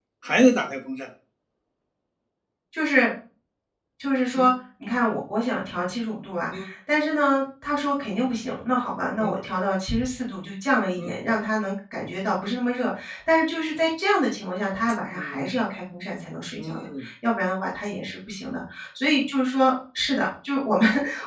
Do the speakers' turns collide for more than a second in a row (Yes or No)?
No